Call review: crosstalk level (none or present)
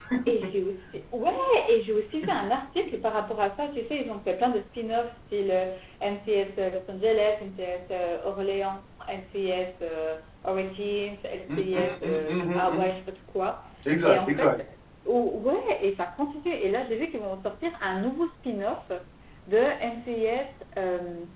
present